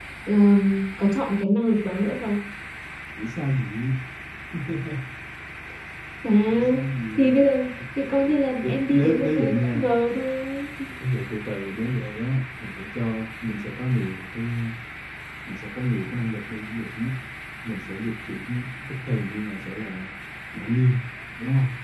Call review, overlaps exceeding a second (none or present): present